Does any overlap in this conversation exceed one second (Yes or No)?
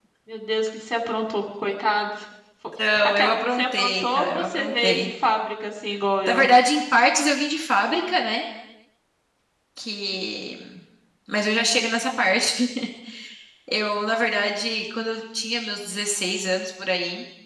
Yes